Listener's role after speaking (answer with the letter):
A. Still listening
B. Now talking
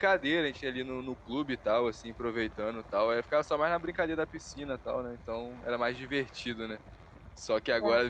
A